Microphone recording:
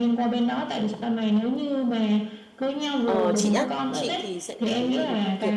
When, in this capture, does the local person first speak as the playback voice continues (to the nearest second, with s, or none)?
3 s